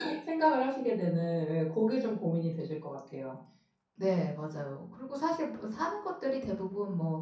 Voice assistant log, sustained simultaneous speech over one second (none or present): none